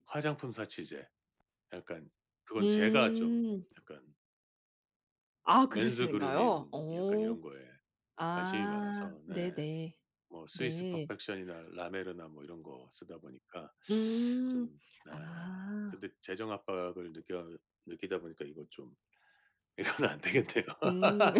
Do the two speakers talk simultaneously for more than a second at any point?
Yes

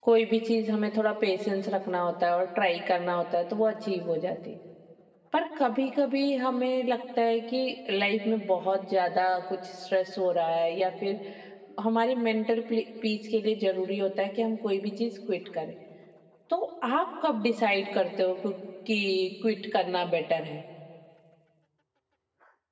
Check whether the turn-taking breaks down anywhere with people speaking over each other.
No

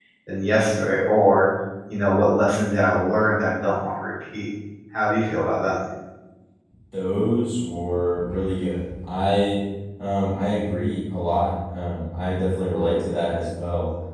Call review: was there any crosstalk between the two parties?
No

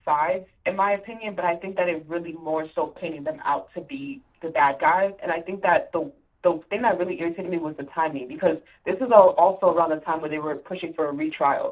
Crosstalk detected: No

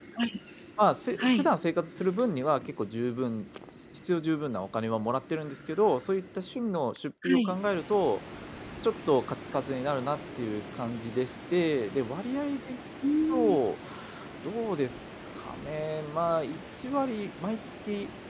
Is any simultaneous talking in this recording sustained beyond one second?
No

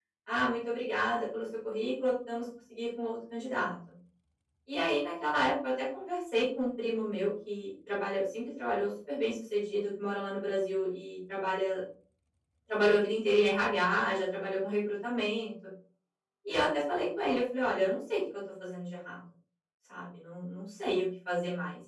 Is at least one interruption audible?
No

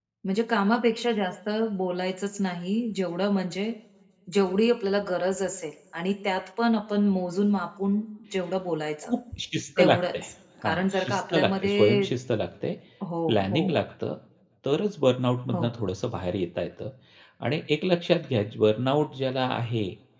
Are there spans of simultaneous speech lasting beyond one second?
Yes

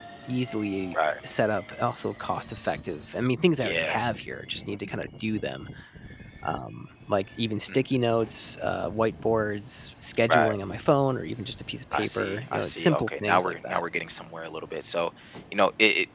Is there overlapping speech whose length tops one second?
Yes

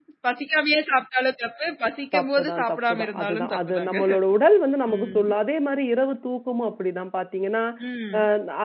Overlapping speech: Yes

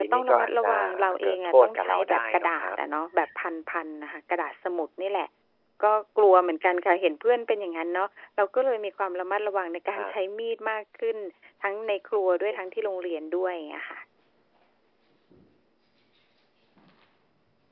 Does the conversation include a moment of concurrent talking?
Yes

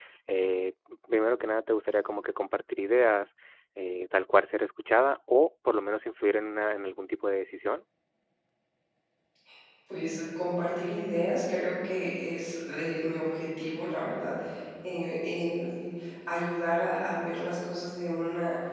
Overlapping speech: No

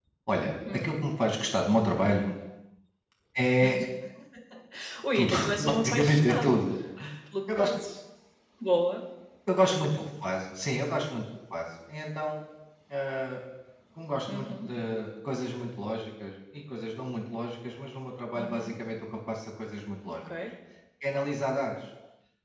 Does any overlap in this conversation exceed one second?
Yes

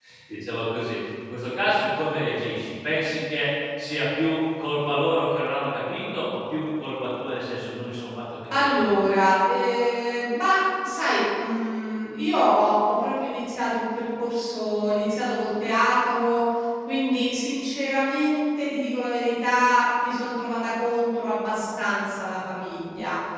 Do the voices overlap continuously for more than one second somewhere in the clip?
No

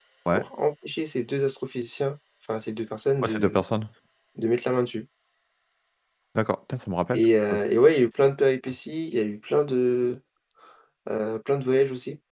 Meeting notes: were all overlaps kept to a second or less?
Yes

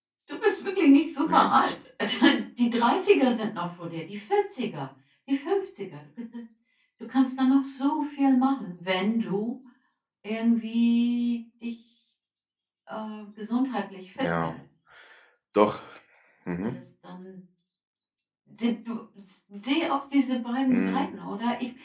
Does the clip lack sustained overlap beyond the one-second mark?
Yes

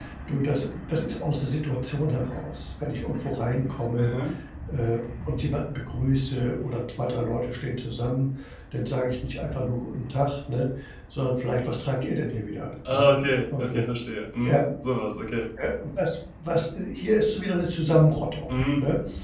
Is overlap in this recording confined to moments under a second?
Yes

